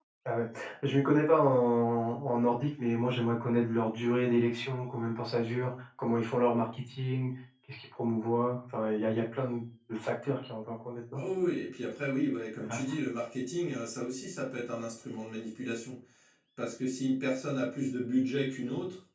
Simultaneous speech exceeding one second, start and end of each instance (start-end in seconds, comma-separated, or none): none